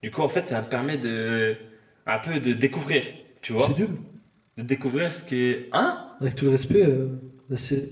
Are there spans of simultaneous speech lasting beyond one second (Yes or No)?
No